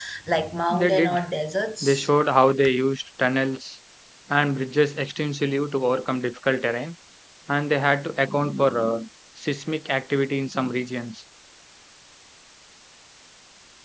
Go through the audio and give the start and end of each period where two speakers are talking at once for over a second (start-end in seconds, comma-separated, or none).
none